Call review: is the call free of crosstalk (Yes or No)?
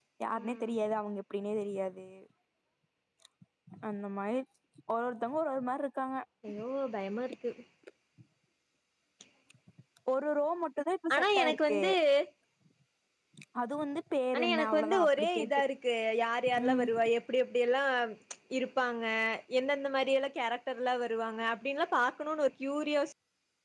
No